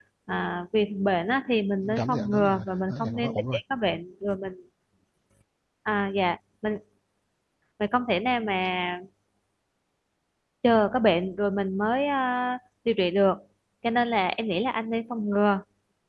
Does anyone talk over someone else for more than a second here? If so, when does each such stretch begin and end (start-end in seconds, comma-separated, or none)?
2.0-3.6